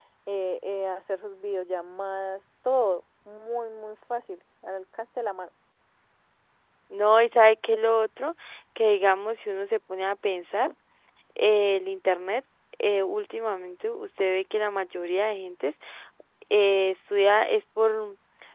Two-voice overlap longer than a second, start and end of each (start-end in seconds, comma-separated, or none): none